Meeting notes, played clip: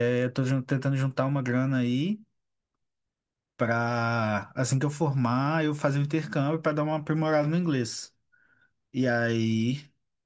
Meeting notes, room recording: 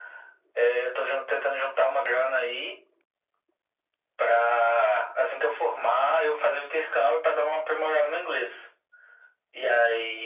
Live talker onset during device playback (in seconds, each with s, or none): none